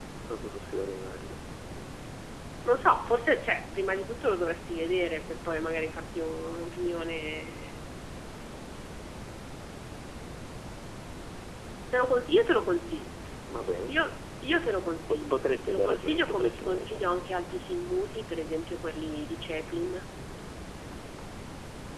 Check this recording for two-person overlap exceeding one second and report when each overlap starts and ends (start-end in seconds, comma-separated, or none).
15.1-17.1